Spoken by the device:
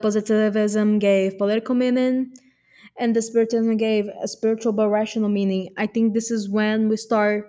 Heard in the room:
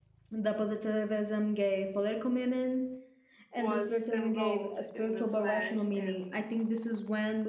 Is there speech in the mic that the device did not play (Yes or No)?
Yes